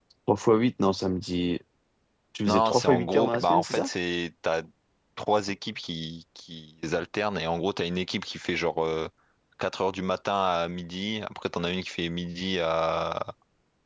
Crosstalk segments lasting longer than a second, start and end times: 2.5-3.9

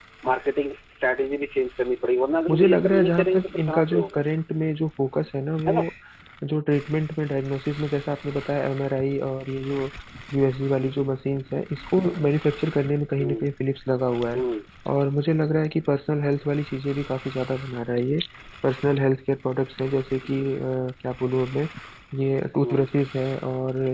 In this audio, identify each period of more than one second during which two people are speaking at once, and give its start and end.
2.5-4.2

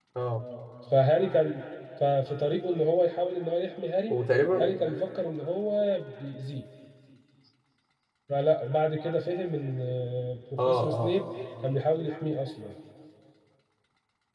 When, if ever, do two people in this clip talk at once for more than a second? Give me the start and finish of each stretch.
none

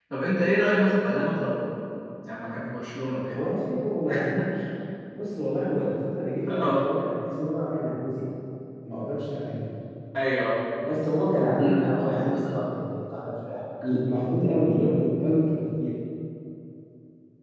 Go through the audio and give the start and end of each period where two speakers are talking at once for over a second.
none

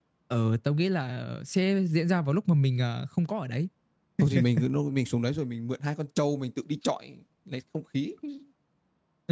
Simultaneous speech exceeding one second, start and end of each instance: none

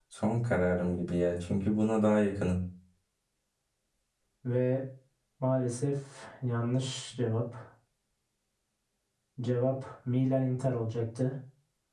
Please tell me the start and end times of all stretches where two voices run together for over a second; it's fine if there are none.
none

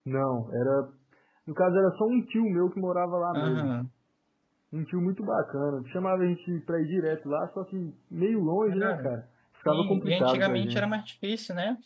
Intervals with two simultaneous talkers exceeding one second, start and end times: 9.7-11.0

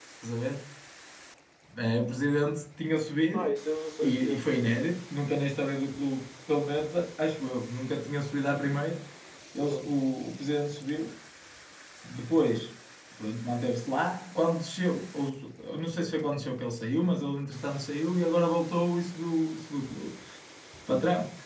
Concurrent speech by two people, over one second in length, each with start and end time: none

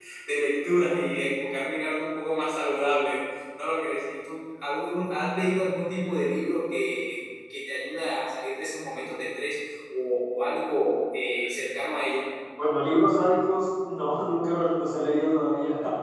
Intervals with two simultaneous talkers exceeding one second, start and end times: none

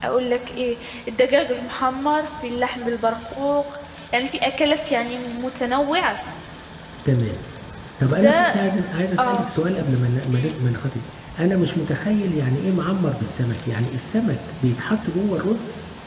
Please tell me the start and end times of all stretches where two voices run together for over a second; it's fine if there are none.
none

